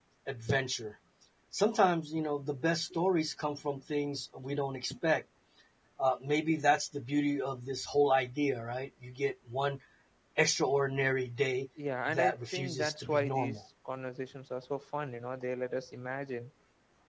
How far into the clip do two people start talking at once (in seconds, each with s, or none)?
12.1 s